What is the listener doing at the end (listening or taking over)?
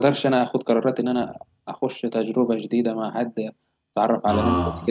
listening